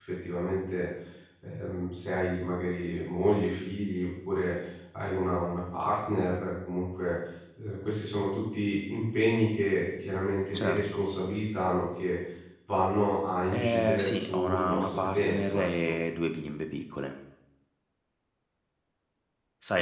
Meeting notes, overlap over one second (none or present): present